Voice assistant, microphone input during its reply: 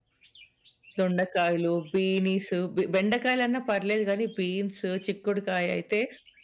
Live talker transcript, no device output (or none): దొండకాయలు, బీనీసు, బె బెండకాయలన్నా పర్లేదు గానీ, బీన్స్, చిక్కుడుకాయ అయితే